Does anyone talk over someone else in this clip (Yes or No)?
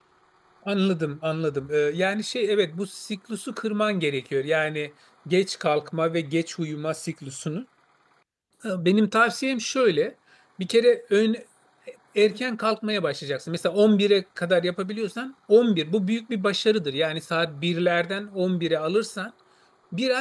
No